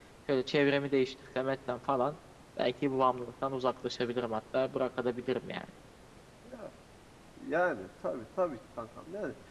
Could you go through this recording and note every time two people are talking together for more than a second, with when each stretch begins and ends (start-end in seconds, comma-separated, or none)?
none